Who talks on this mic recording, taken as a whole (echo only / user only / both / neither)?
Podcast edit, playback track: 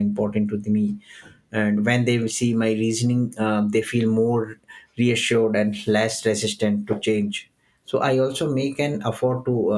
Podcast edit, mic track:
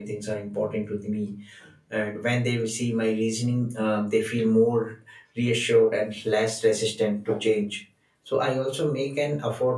echo only